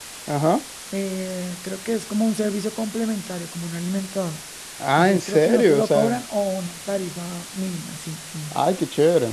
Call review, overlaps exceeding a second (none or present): present